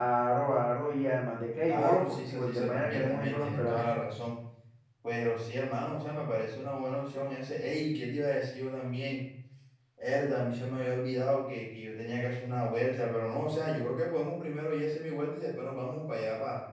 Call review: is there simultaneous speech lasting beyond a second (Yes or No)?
Yes